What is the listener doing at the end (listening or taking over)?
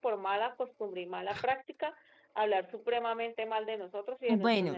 taking over